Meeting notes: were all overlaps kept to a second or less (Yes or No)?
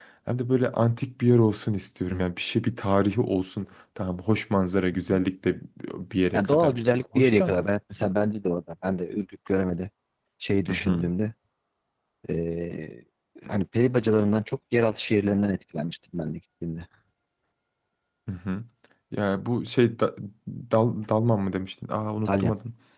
Yes